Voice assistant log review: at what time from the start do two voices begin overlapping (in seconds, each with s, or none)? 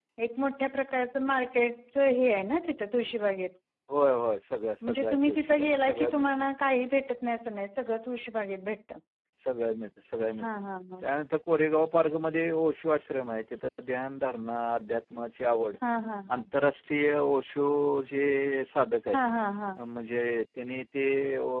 4.8 s